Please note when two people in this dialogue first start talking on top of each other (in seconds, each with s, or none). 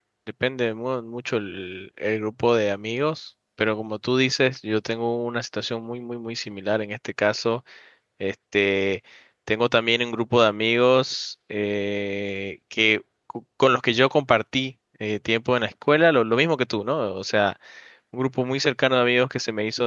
none